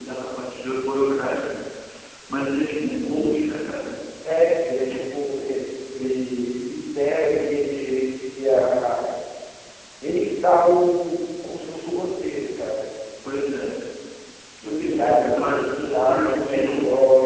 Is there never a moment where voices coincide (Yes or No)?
No